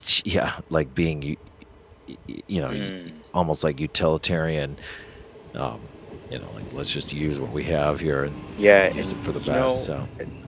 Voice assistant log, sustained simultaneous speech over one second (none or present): present